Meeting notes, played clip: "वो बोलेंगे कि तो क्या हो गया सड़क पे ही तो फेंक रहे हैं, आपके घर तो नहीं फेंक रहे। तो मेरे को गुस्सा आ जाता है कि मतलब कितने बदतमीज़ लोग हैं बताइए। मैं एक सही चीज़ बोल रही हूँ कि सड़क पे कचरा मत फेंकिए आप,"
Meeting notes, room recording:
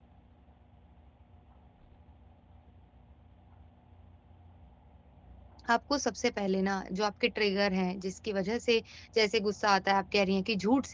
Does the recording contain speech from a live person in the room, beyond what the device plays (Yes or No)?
Yes